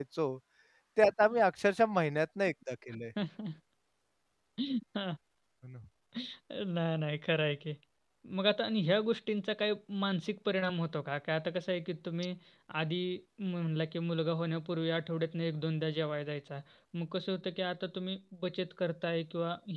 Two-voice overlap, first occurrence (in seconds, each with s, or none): none